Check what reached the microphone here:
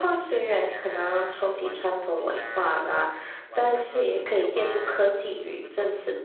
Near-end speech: present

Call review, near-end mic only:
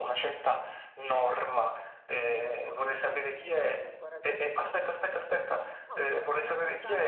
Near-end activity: present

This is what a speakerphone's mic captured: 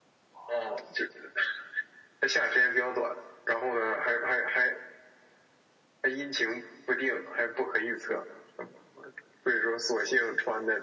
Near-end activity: none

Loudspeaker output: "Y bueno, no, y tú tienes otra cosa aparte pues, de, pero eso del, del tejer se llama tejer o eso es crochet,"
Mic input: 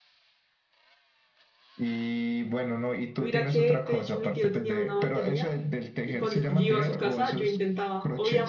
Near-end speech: present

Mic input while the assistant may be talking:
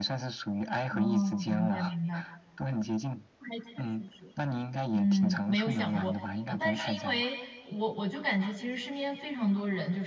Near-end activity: present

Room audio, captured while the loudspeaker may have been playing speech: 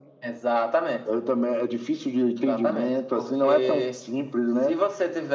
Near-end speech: none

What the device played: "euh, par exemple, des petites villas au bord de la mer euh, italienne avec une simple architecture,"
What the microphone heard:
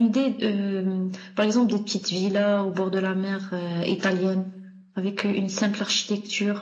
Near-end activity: none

